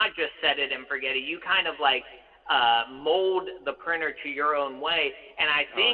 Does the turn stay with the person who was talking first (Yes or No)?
No